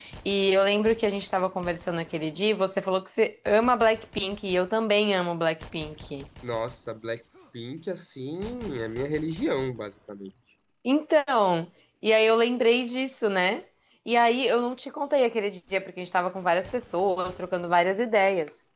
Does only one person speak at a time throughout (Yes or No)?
Yes